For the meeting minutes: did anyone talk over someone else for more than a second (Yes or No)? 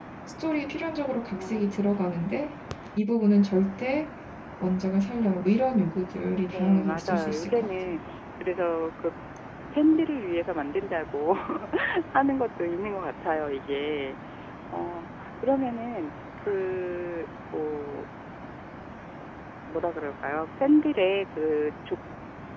Yes